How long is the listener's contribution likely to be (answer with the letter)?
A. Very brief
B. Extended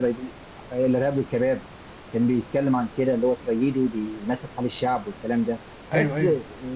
A